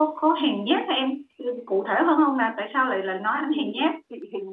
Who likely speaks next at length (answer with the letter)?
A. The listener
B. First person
A